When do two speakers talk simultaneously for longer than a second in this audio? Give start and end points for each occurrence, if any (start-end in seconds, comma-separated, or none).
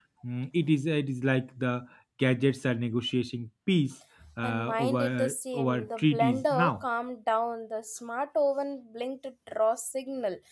4.4-6.8